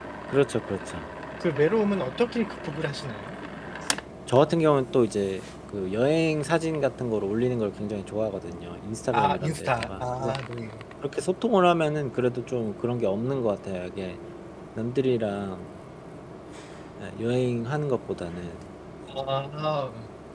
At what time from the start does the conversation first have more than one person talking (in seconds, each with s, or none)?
9.1 s